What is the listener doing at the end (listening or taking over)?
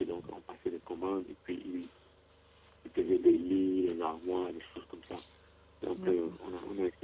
listening